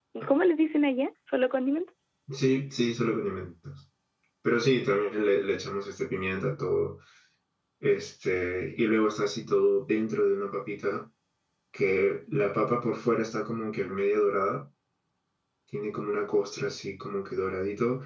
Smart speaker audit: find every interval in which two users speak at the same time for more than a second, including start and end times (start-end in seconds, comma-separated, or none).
none